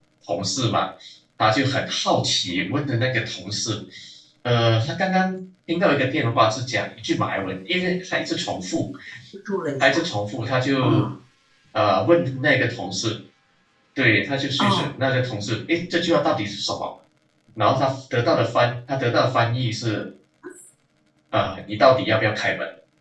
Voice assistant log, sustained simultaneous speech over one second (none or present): none